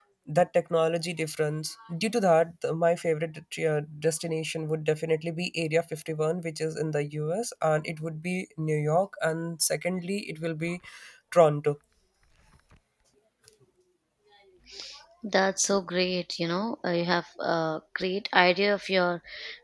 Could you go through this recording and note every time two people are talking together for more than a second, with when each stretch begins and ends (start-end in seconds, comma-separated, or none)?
none